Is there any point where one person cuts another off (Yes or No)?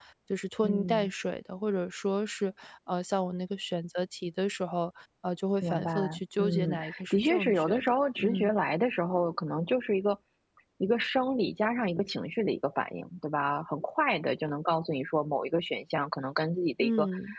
Yes